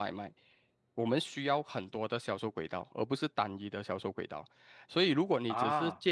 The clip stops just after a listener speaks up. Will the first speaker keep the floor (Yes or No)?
Yes